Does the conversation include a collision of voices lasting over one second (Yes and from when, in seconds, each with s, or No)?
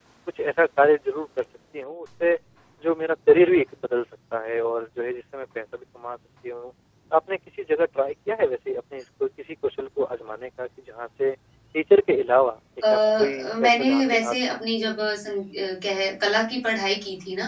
Yes, from 12.8 s